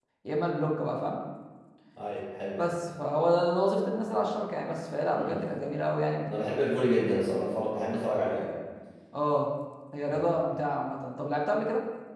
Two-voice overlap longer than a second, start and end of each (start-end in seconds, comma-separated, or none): none